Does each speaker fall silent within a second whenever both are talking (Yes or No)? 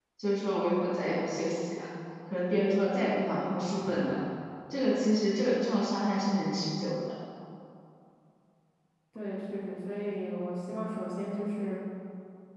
Yes